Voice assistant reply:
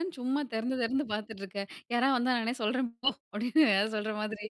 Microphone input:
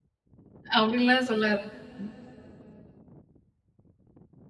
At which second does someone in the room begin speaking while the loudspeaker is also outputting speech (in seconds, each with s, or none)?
0.8 s